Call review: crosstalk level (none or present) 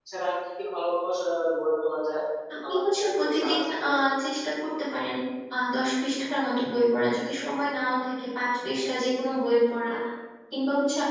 present